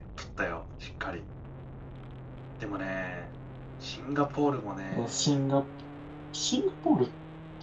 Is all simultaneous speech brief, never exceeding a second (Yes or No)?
Yes